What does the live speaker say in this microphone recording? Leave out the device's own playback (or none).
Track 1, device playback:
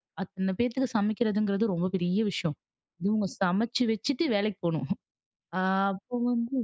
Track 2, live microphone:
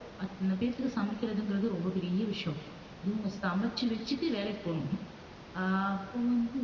none